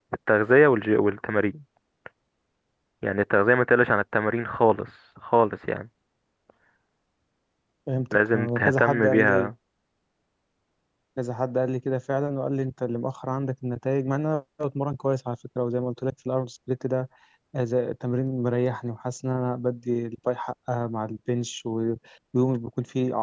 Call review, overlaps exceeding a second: present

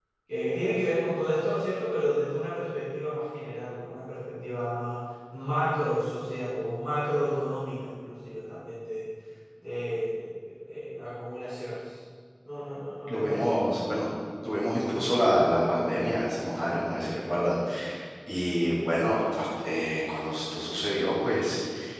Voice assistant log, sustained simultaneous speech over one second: none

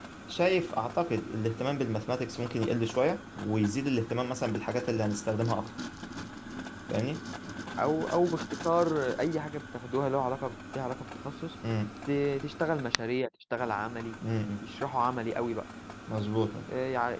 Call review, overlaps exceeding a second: none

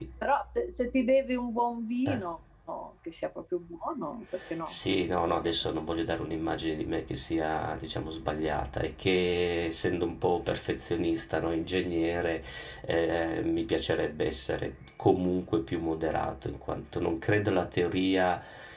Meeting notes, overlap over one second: none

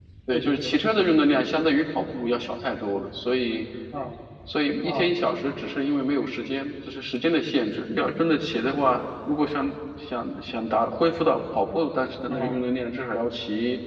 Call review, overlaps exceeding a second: none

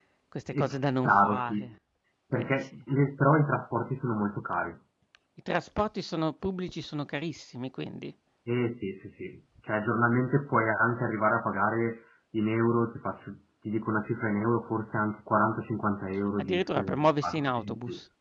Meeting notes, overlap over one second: present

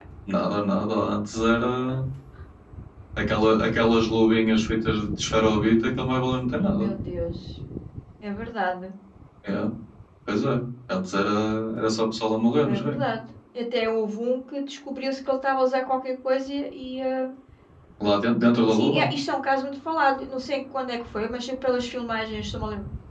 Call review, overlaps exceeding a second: none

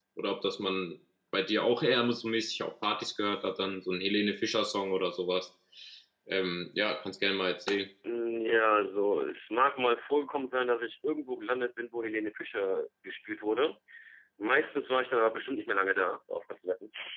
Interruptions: none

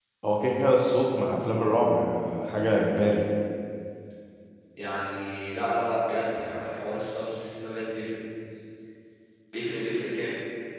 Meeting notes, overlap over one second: none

